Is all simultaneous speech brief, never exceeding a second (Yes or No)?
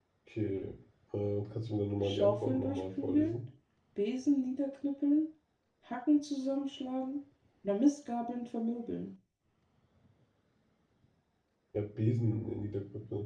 No